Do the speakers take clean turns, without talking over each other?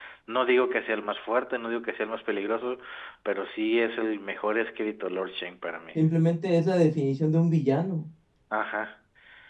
Yes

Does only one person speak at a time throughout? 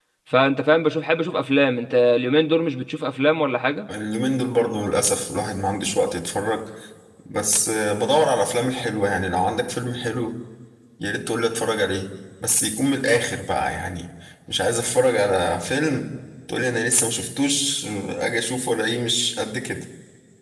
Yes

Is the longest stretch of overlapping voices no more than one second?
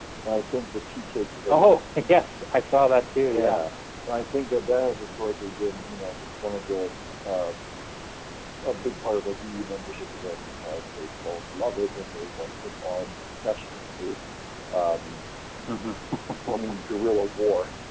Yes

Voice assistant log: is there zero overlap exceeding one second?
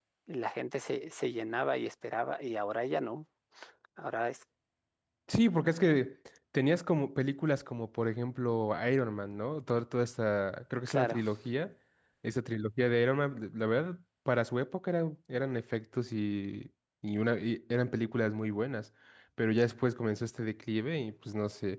Yes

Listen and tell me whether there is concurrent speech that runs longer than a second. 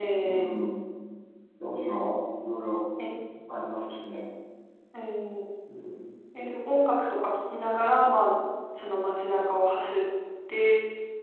No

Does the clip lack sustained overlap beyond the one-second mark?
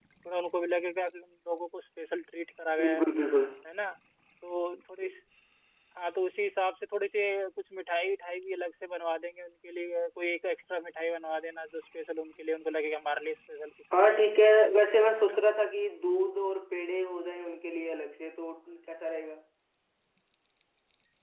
Yes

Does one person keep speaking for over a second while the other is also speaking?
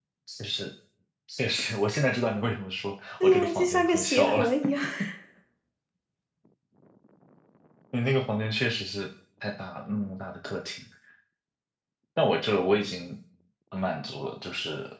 Yes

